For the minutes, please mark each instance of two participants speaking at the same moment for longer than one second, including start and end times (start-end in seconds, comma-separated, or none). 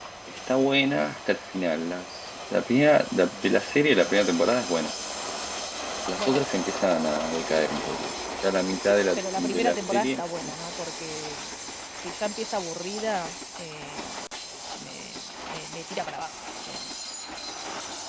9.2-10.6